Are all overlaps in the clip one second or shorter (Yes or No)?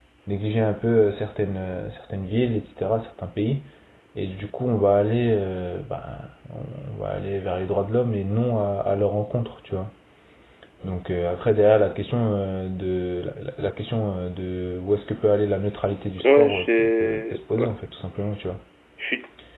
No